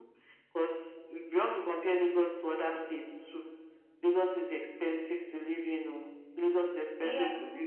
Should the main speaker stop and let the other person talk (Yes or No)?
Yes